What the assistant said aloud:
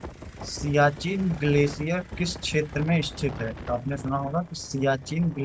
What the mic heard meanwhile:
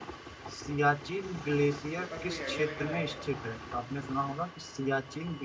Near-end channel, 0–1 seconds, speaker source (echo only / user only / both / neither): echo only